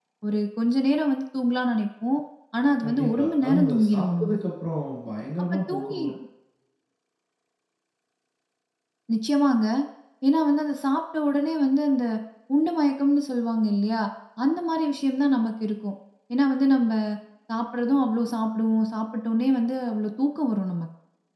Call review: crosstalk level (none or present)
present